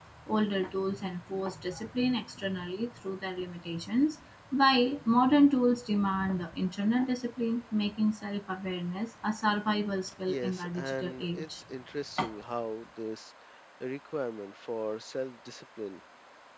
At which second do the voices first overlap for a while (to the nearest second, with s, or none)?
10 s